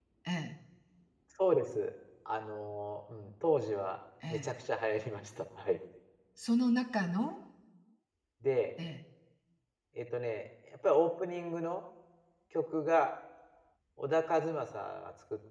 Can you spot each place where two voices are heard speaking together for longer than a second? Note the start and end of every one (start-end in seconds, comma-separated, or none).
none